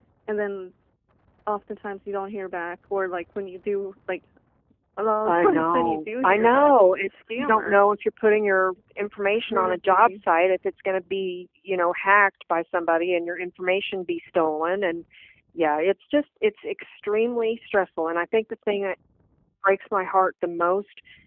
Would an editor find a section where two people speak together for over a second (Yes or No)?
Yes